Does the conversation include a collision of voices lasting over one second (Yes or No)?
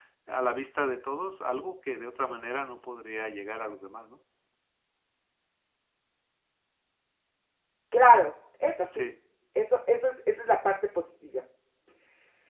No